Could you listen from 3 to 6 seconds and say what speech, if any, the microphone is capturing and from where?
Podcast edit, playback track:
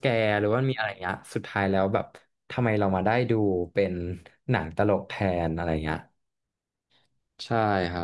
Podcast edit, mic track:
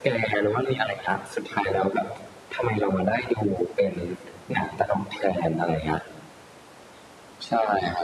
echo only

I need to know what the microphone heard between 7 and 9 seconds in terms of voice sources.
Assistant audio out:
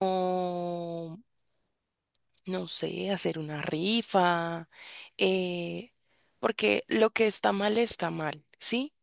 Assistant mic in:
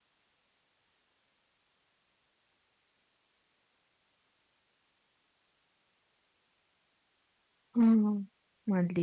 user only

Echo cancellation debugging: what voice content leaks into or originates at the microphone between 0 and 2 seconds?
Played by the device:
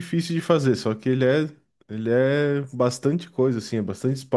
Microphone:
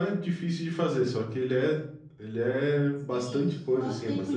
echo only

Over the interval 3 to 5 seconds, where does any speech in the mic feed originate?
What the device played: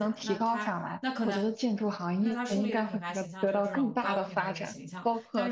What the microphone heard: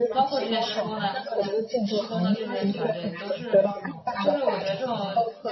both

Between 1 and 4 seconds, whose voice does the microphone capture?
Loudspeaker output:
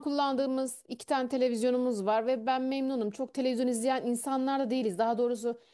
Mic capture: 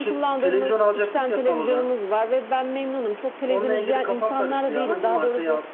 both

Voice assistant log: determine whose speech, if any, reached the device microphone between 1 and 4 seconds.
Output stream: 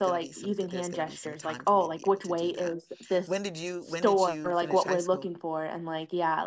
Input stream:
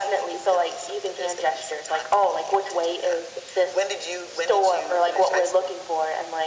echo only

